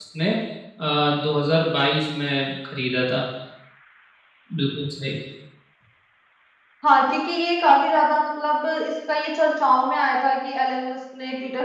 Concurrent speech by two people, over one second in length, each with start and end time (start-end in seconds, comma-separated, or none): none